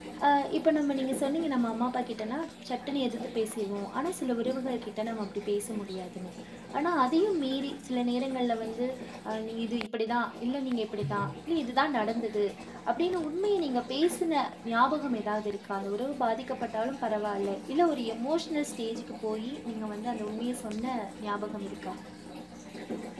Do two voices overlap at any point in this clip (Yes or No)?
No